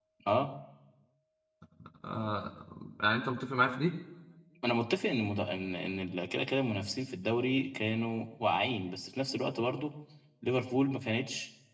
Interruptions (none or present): none